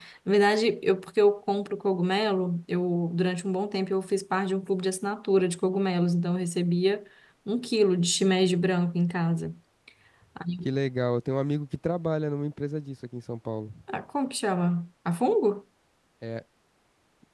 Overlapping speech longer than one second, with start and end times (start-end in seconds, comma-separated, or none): none